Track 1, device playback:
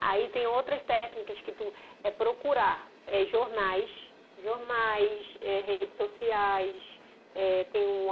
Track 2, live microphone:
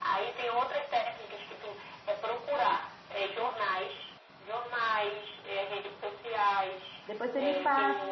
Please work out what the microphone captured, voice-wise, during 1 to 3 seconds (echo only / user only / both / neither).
echo only